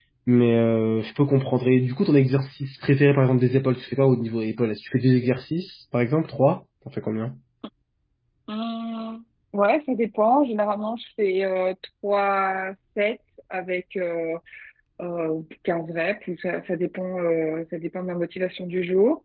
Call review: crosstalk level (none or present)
none